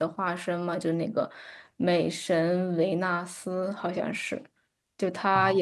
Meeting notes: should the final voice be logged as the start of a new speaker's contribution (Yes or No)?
No